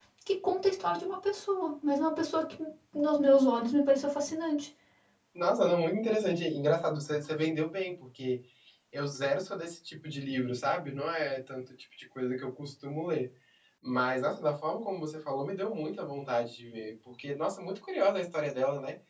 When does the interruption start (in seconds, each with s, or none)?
none